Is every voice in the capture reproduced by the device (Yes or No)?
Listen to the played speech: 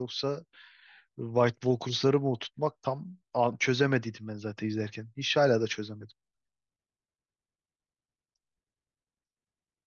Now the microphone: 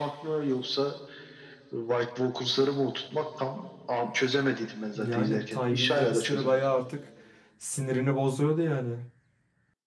No